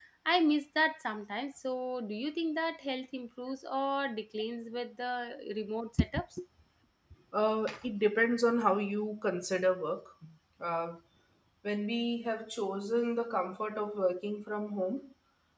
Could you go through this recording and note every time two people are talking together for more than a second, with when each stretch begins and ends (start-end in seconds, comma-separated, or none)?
none